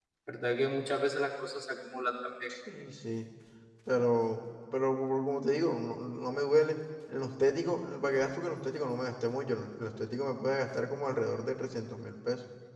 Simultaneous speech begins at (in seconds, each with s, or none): none